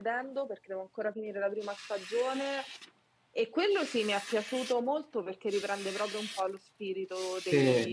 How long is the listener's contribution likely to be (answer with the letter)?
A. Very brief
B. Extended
B